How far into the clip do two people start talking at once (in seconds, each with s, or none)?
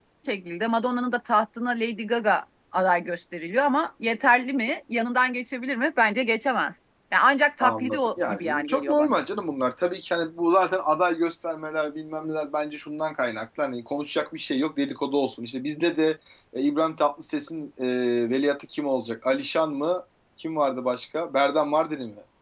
7.6 s